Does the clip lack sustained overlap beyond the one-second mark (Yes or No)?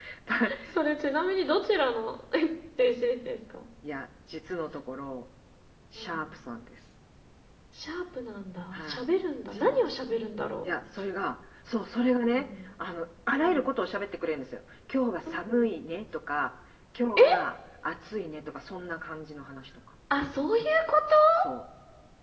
Yes